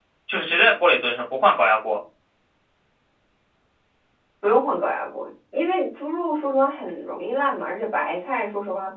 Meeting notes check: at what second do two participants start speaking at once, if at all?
none

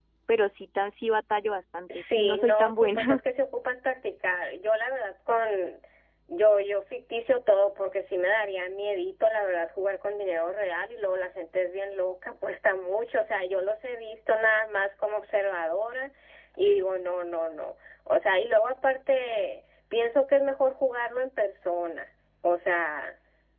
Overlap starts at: 2 s

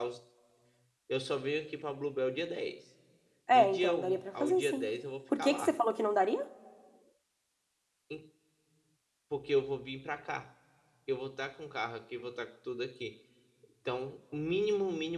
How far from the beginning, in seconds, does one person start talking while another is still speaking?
4 s

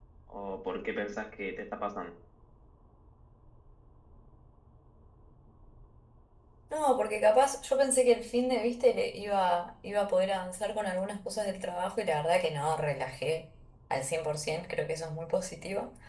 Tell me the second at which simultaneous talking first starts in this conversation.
none

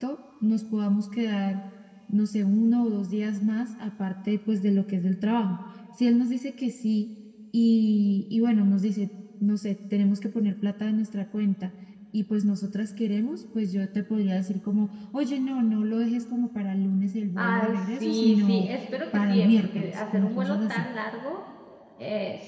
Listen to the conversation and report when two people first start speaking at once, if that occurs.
17 s

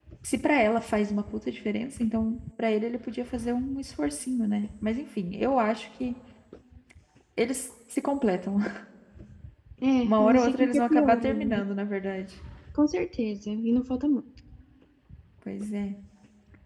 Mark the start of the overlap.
10 s

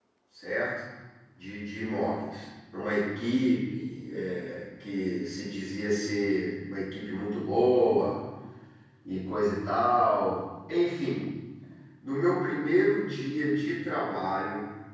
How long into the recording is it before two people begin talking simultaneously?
none

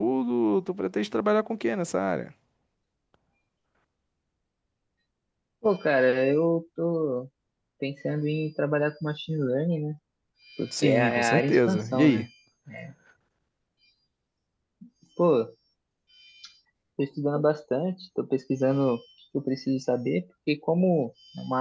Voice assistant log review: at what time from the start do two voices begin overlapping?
11 s

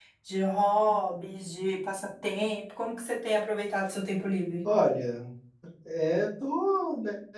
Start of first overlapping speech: none

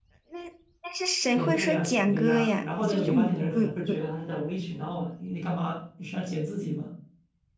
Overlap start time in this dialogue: 1 s

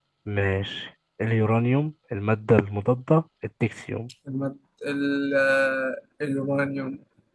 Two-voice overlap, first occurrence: none

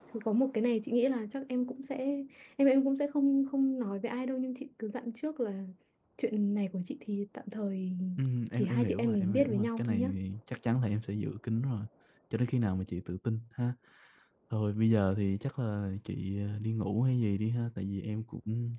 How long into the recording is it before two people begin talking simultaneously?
9 s

